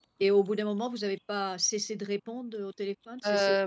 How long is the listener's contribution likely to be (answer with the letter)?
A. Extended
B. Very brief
A